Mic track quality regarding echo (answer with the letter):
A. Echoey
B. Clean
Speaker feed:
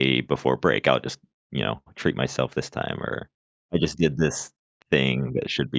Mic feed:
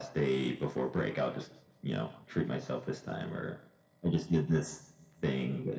A